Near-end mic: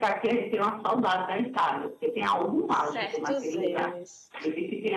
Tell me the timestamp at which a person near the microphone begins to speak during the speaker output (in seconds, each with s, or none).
2.7 s